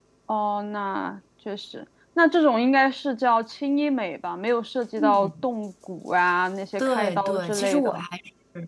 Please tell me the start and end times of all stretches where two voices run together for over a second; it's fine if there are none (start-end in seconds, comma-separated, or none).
6.8-8.0